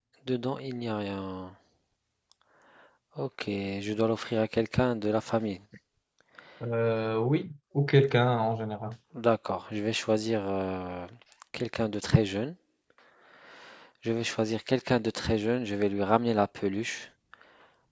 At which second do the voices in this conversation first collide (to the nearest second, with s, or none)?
none